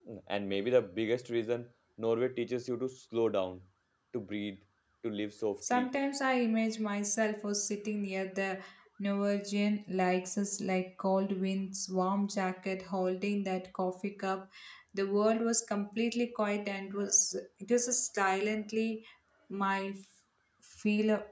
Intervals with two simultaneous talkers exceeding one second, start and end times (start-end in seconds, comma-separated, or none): none